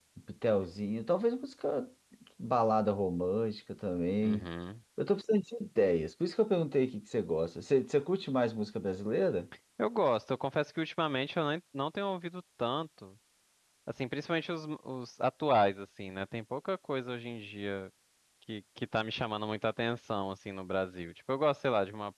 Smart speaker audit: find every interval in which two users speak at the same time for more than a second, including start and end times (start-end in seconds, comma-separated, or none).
none